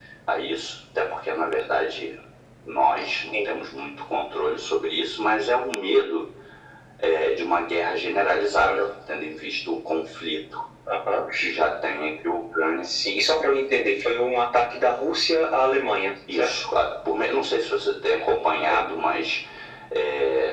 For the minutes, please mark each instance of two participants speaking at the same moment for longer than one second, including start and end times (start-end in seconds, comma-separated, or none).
none